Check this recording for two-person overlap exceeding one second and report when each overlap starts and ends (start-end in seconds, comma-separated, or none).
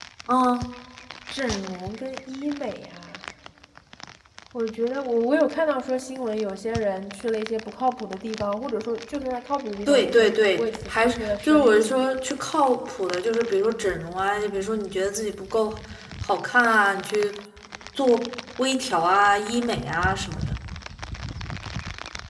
9.9-12.0